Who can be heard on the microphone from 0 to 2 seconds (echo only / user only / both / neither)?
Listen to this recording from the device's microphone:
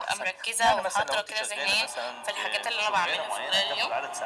echo only